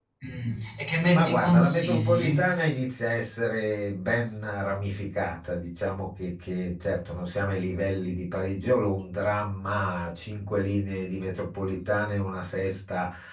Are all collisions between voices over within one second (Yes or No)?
No